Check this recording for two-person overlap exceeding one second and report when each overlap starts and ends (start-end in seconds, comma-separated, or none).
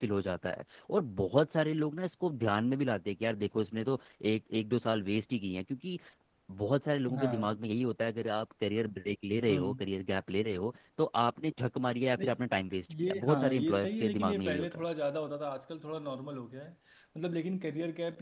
13.0-14.8